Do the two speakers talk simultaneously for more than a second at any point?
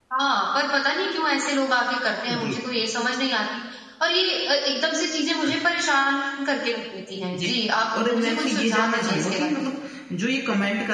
Yes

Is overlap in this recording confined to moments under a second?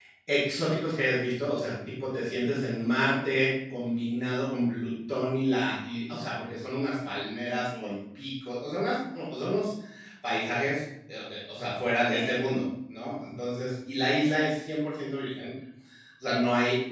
Yes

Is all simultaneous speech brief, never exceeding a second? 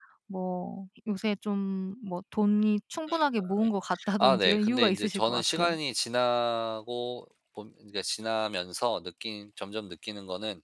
No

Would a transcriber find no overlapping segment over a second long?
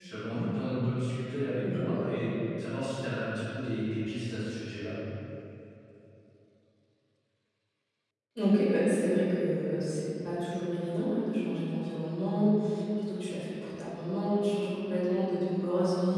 Yes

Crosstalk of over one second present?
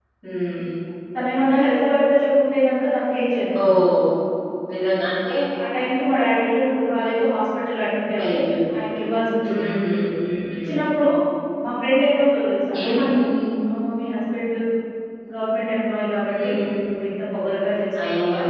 No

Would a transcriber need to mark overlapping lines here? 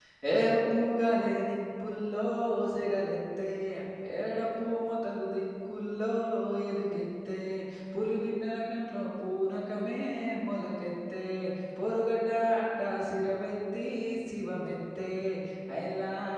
No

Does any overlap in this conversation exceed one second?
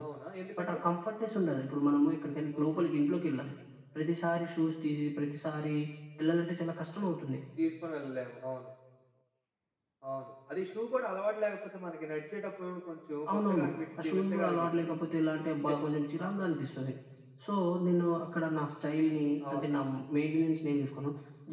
Yes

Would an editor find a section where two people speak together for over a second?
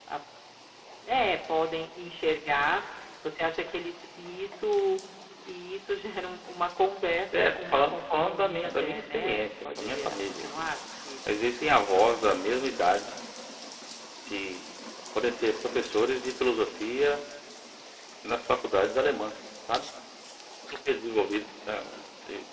Yes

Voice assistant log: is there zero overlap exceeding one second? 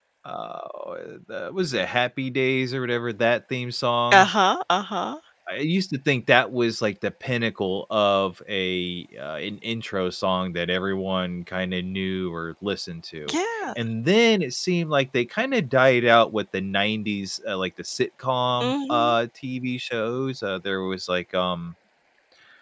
Yes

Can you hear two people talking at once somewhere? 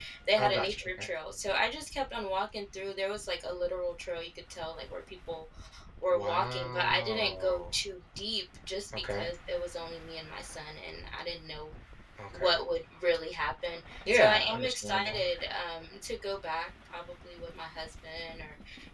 Yes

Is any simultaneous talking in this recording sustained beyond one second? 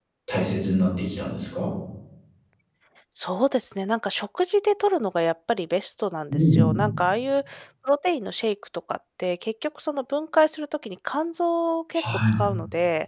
No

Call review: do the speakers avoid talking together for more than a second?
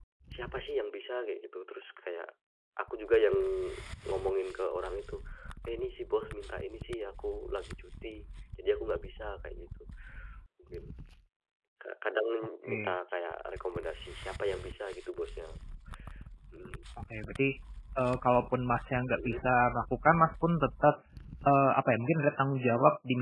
Yes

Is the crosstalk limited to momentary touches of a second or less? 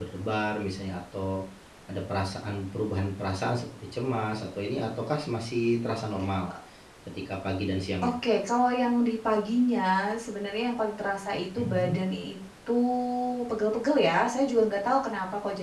Yes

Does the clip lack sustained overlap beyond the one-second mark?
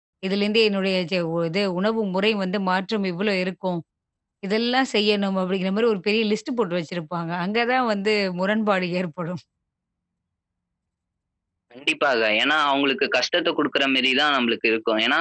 Yes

